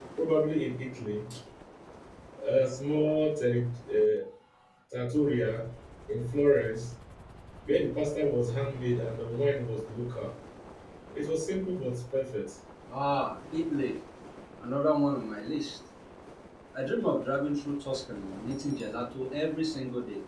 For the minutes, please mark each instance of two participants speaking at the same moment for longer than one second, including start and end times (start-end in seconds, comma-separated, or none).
none